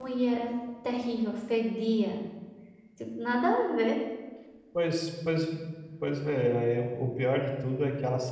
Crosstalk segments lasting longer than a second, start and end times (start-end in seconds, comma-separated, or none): none